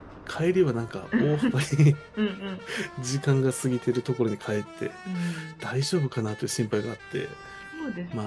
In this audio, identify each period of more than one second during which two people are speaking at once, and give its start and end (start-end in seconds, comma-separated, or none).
none